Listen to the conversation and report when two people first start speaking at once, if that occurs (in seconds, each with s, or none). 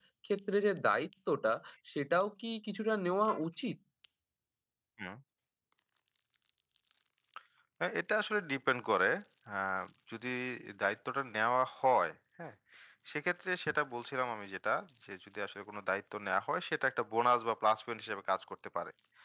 none